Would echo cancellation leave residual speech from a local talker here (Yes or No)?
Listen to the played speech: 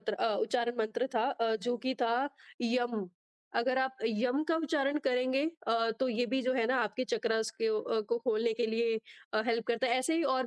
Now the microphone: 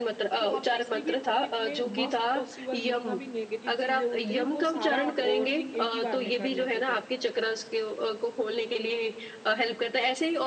Yes